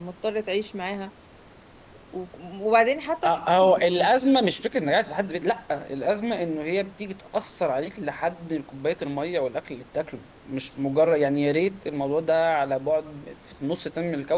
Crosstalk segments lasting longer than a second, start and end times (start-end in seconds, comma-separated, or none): none